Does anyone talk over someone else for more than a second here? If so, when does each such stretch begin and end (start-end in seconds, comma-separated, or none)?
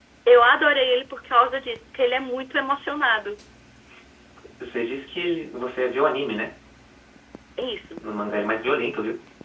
none